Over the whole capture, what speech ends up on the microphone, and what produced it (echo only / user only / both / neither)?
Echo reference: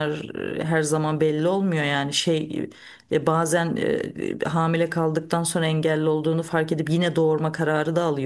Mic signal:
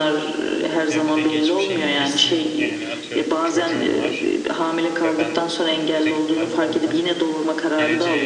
both